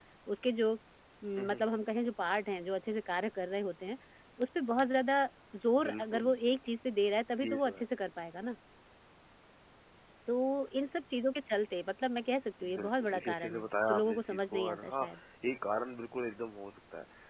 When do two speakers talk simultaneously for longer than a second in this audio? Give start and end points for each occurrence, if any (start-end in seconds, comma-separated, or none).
12.8-15.1